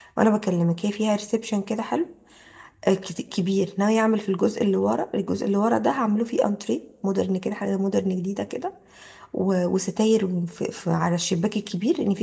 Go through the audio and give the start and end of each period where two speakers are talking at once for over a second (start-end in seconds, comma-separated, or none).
none